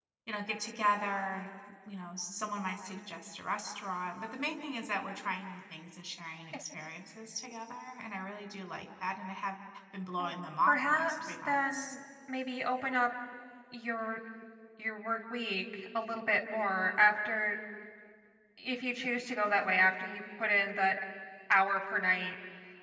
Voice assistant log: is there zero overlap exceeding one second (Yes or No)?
No